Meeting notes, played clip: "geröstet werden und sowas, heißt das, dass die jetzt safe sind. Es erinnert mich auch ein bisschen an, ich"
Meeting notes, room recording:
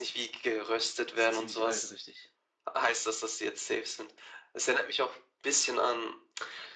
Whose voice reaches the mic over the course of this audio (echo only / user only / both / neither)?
both